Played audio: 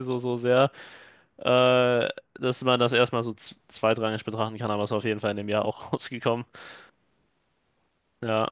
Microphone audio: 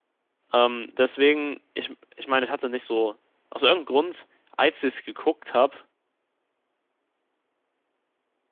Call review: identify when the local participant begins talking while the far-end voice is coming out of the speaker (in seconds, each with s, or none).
0.5 s